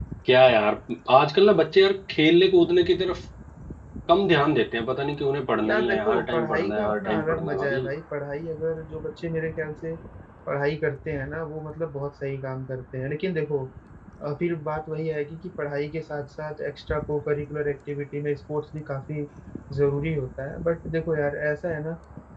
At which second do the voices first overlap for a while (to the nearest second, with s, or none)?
6 s